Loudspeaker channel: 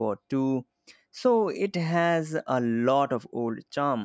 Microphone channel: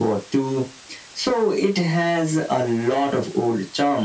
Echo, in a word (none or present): present